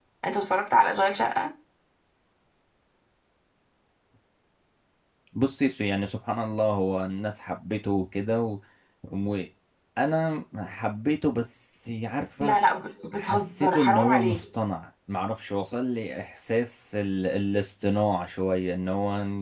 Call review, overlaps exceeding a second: present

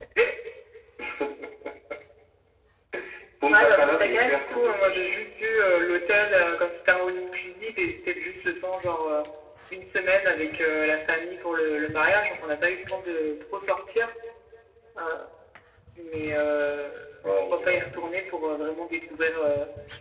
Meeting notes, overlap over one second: present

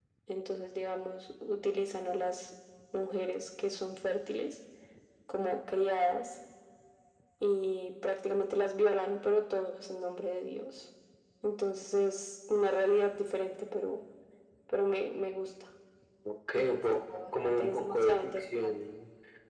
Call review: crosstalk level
present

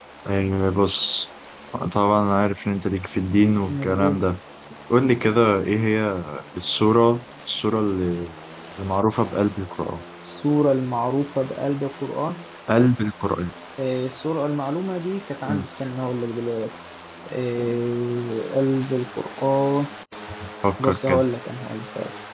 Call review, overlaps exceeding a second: none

